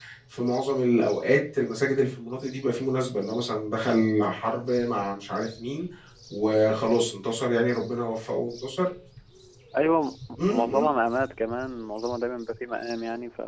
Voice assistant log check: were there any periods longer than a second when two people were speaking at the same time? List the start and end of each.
none

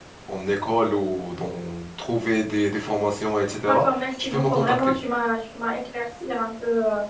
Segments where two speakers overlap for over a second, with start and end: 3.6-4.9

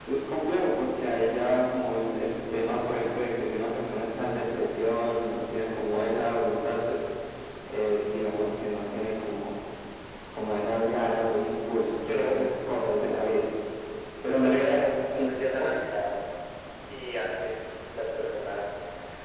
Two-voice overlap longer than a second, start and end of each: 14.4-15.8

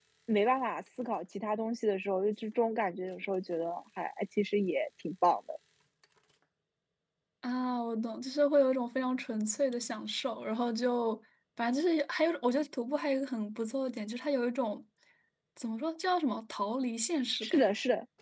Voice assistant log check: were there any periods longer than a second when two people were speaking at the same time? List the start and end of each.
none

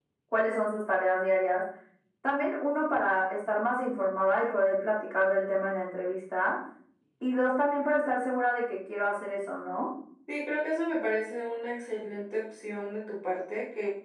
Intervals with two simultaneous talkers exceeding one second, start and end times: none

